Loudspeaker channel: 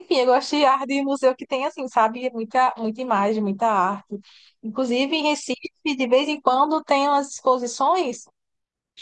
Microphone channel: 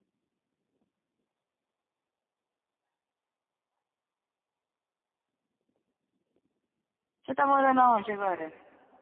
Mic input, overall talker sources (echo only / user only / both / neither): user only